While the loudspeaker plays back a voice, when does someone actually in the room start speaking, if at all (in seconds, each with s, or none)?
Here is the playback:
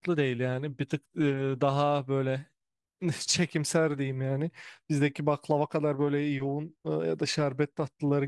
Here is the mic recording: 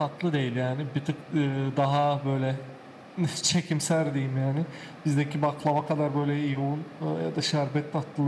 none